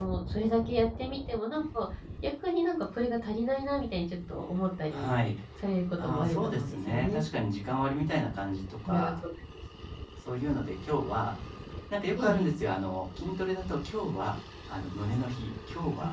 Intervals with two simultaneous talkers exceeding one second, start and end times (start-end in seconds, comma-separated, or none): 6.0-7.2